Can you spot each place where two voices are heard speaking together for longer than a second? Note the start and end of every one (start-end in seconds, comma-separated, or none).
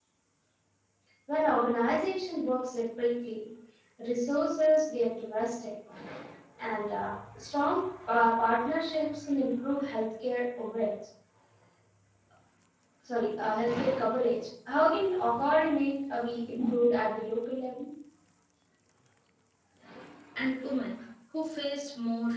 none